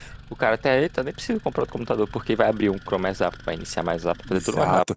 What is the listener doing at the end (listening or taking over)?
taking over